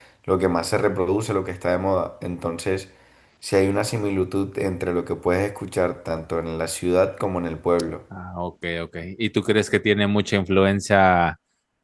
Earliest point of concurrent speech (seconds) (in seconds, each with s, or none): none